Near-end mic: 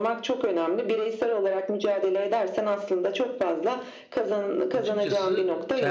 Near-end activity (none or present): present